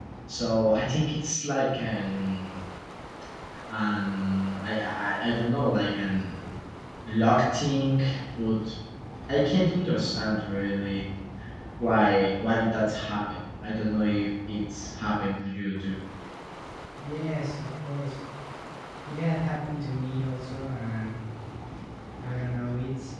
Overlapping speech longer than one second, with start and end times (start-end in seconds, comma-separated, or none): none